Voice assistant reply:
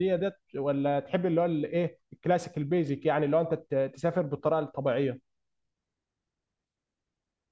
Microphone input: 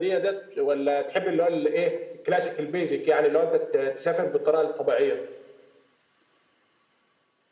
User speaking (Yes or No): No